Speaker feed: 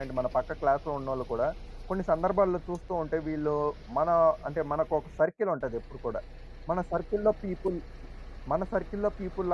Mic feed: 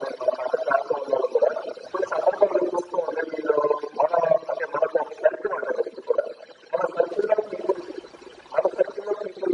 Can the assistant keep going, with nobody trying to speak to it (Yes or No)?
Yes